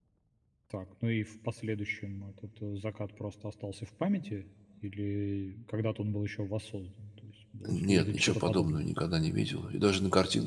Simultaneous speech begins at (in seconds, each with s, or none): 7.6 s